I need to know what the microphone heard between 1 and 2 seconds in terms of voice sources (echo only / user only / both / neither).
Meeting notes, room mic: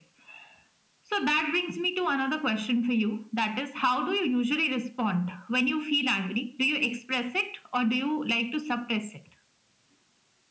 echo only